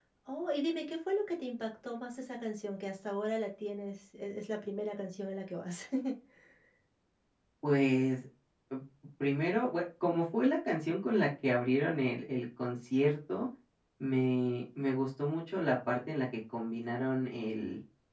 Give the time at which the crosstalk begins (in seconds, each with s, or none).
none